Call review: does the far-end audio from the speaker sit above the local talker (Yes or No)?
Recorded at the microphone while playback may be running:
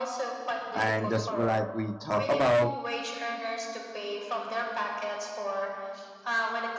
No